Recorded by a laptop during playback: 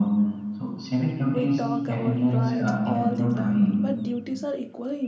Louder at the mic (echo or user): echo